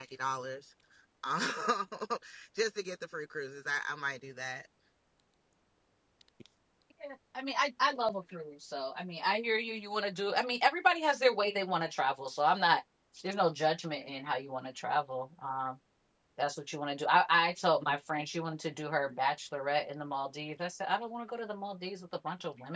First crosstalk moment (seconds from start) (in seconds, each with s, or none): none